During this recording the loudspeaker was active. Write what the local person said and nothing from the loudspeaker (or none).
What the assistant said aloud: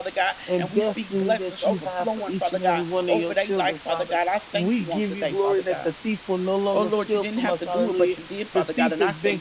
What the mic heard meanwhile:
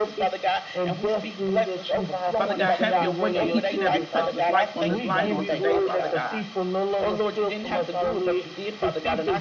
Father God, have your way in each and every person's life on this line on today, Father God.